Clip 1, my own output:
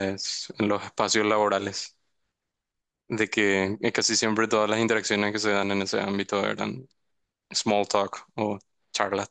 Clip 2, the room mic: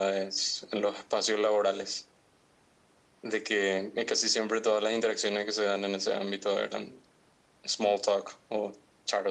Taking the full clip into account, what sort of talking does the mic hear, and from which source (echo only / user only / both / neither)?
echo only